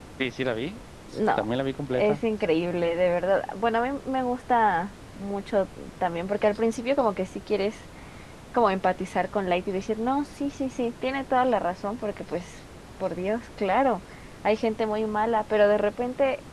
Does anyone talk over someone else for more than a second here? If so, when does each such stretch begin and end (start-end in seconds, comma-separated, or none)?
none